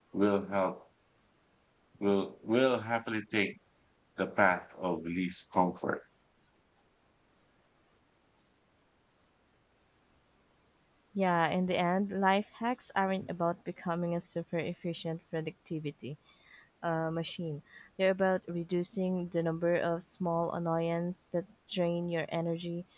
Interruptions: none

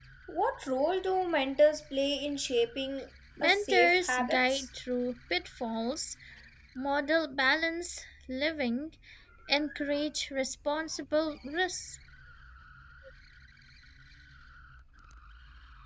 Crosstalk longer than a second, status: present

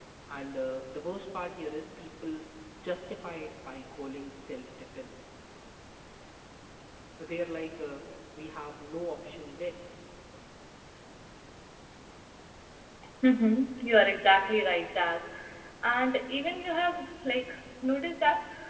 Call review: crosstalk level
none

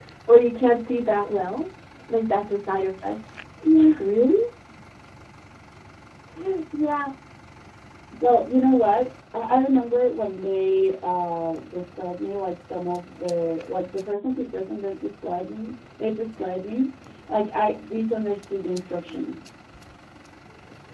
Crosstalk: none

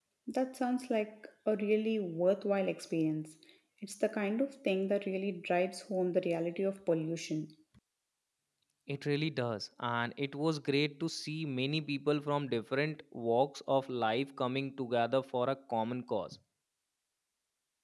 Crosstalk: none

